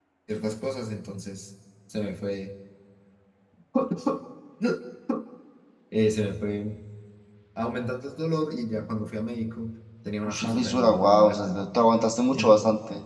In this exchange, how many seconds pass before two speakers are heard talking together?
10 s

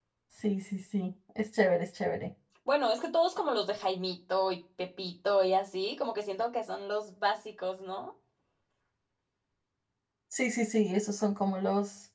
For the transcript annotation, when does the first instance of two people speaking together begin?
none

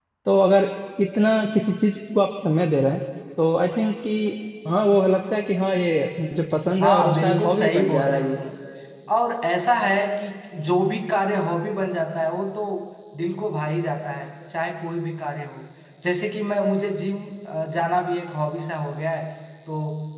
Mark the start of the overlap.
7 s

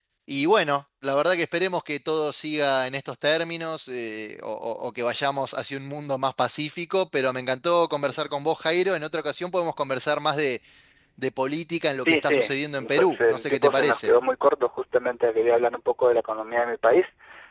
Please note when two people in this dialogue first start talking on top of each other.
12 s

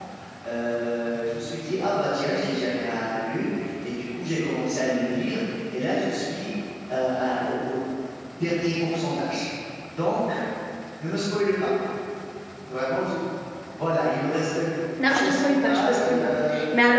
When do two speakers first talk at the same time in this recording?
15 s

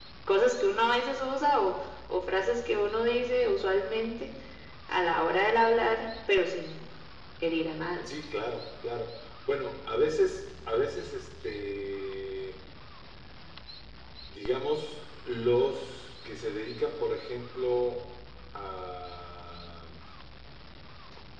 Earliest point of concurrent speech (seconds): none

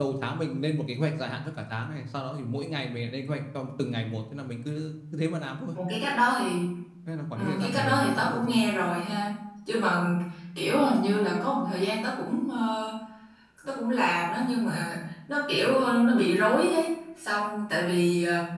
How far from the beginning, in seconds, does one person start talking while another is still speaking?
7 s

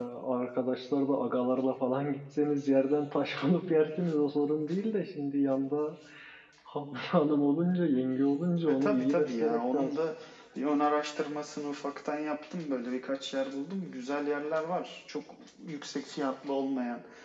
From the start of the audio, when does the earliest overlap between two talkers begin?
9 s

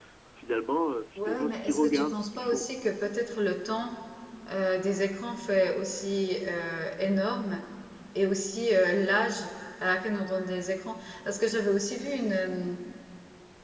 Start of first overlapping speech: 1 s

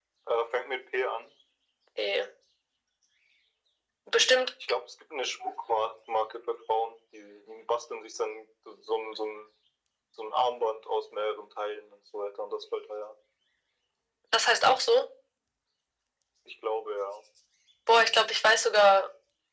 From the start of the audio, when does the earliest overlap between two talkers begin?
none

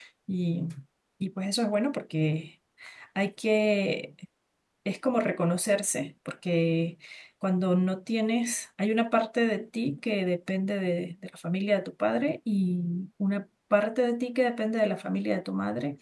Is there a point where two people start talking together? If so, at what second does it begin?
none

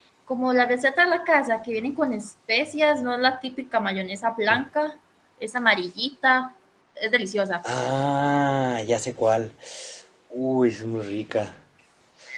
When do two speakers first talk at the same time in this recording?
none

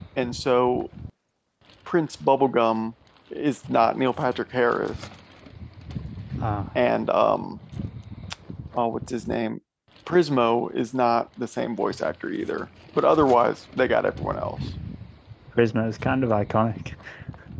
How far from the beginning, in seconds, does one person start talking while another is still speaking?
none

